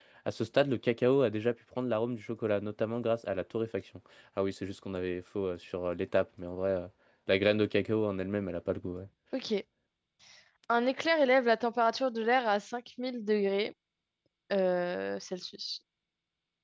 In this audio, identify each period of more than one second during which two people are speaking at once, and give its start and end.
none

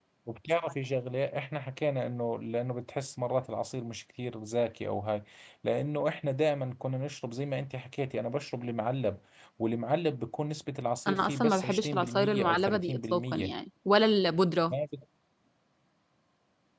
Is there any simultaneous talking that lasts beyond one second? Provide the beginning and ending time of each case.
11.1-13.5

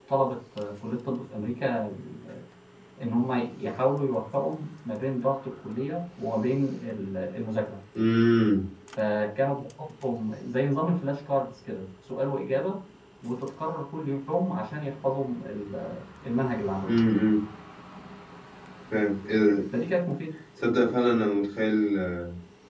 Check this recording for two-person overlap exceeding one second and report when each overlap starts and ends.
none

